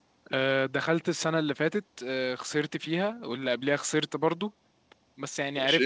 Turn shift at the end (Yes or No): No